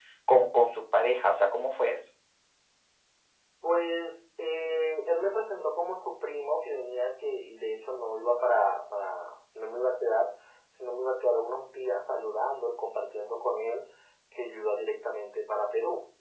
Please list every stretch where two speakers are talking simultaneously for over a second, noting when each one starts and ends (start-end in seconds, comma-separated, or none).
none